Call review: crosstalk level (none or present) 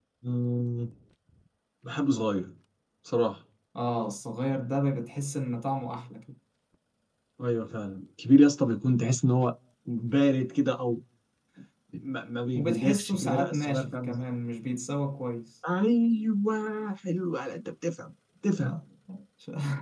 present